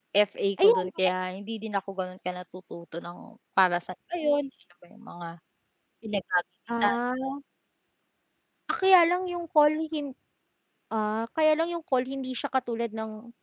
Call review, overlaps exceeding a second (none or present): none